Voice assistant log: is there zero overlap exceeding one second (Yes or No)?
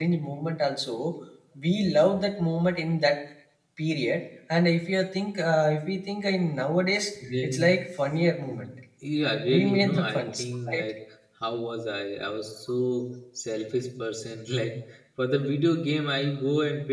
No